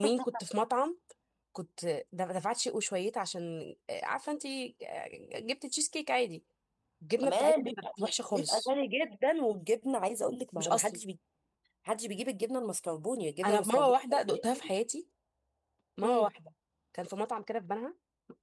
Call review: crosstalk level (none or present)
present